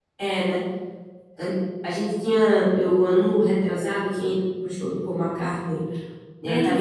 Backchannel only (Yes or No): Yes